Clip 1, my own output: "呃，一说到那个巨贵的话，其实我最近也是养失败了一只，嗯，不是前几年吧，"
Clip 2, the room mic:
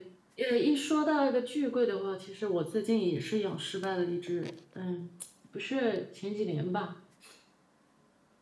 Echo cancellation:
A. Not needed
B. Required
B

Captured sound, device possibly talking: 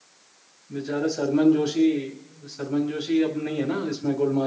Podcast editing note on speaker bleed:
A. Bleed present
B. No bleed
B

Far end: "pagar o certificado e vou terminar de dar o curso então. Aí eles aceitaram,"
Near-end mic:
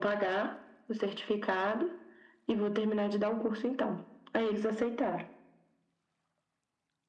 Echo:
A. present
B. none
A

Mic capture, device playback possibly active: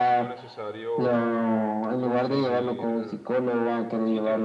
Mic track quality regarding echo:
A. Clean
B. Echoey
B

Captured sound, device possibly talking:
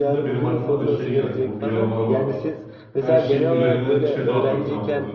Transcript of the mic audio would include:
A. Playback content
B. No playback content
A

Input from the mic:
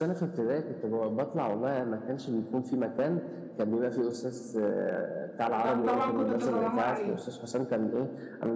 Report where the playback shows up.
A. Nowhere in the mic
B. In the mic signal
B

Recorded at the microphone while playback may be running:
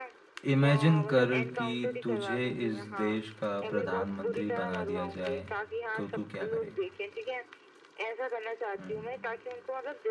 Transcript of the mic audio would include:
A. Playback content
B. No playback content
A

